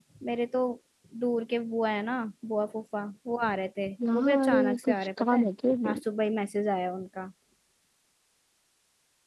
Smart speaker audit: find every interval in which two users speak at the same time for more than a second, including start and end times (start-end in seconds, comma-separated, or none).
4.1-5.5